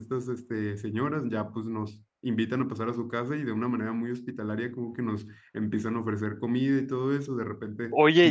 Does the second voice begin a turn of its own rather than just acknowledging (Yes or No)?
Yes